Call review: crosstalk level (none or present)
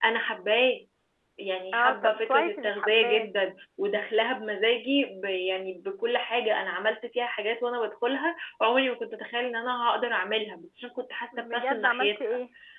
present